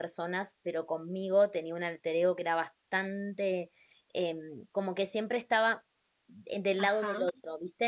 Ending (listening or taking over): listening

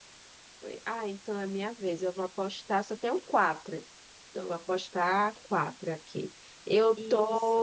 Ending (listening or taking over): listening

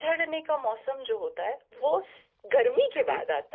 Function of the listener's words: listening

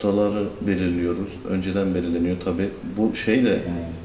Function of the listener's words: listening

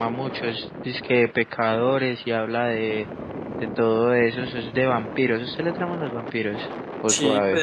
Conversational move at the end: taking over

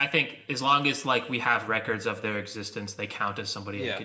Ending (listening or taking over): taking over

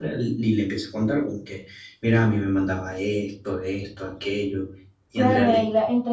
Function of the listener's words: taking over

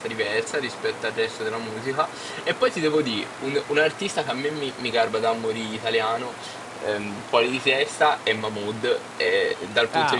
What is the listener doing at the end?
listening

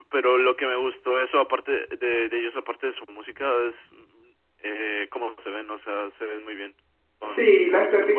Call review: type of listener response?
taking over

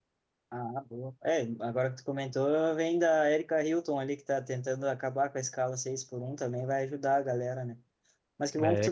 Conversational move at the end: listening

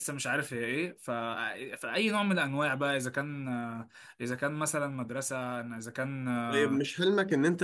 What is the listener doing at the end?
taking over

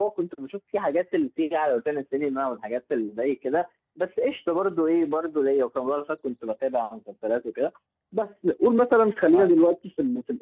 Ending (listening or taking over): listening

